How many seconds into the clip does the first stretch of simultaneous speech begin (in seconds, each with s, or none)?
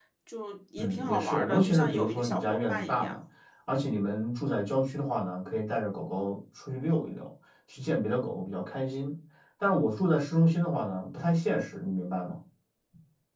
0.8 s